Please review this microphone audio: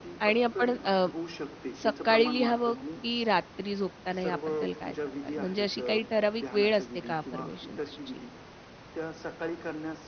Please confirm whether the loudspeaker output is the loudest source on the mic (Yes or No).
No